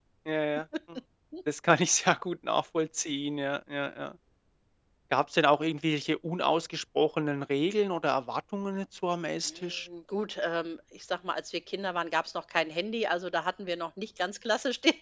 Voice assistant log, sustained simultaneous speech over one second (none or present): none